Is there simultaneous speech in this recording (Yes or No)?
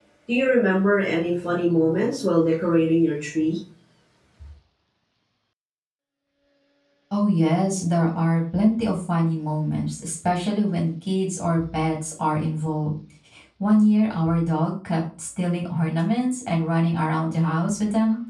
No